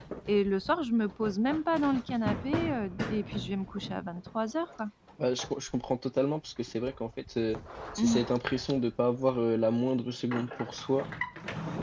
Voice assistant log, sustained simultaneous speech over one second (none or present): none